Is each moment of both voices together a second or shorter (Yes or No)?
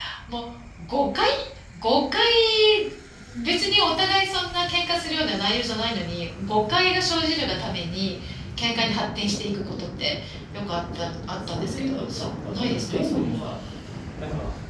No